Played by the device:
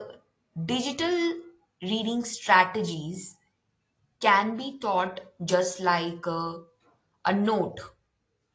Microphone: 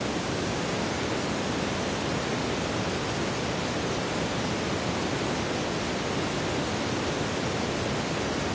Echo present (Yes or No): No